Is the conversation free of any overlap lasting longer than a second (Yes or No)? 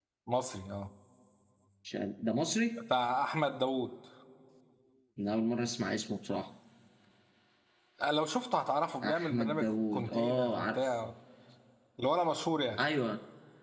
No